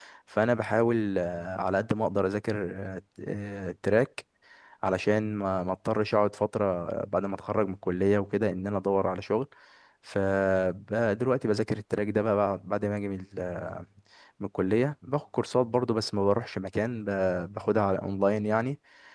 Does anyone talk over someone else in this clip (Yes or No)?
No